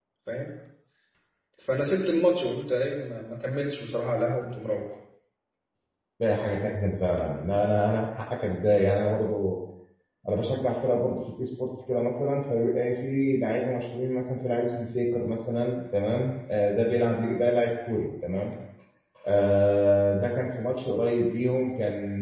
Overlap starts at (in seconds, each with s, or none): none